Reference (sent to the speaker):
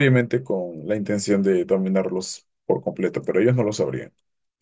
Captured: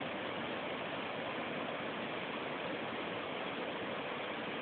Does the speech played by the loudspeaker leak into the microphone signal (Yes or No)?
No